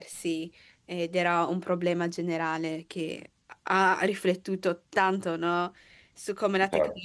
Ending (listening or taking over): listening